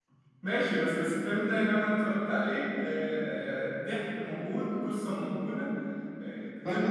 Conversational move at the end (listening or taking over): taking over